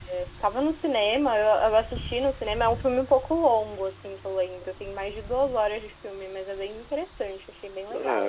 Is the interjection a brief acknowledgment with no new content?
No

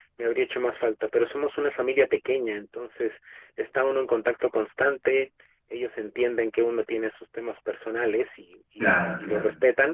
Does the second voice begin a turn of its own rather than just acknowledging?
No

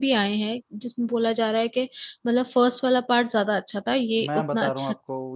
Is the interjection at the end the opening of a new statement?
Yes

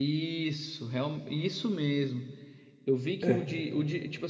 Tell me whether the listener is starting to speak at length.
No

